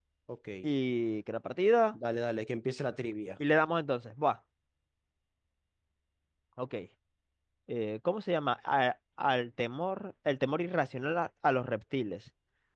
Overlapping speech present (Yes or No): No